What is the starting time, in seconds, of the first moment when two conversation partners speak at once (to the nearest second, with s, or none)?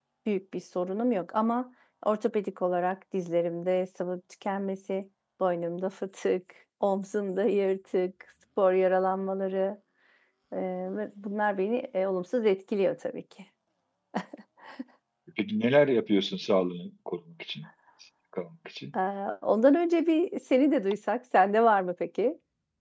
none